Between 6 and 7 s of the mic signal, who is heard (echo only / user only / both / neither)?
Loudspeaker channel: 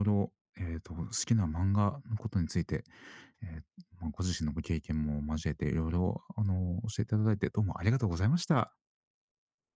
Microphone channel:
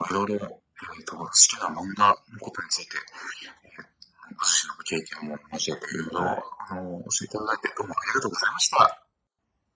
both